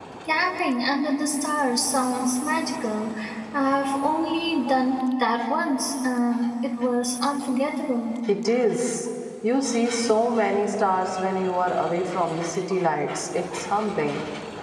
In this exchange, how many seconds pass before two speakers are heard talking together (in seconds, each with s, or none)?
none